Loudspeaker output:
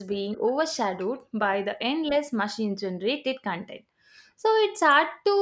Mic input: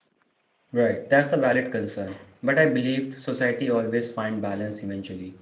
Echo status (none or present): none